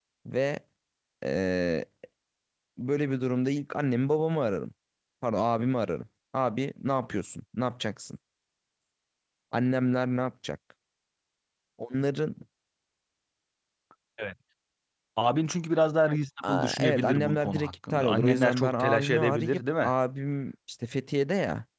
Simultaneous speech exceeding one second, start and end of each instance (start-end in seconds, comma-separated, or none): 16.5-19.9